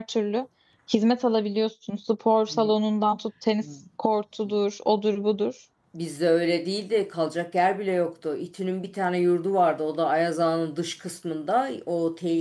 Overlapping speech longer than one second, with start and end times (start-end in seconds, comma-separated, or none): none